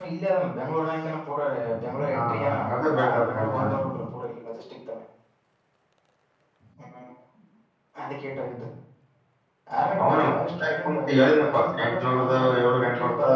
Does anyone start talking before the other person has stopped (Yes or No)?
Yes